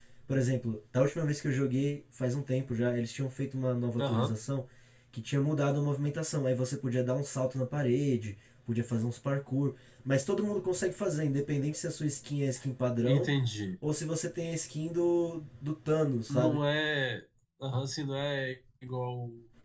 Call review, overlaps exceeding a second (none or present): none